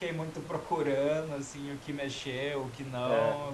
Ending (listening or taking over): listening